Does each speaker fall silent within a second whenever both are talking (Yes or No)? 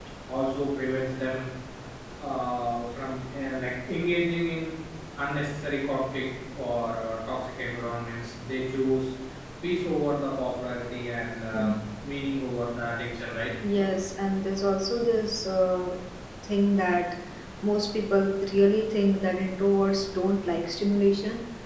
Yes